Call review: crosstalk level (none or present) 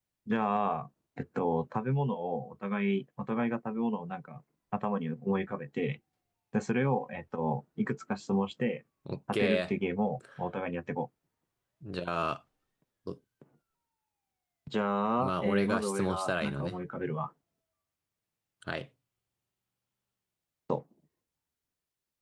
present